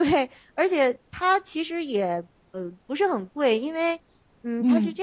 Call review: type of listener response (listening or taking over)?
listening